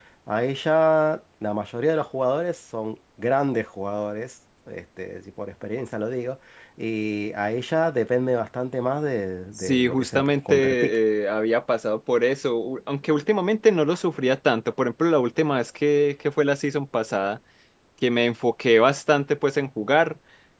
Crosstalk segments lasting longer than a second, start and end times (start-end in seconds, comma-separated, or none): 9.6-11.0